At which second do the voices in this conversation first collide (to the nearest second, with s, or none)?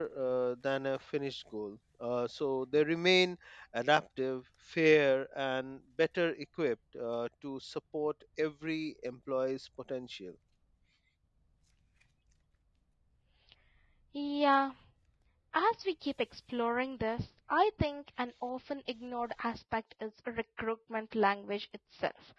none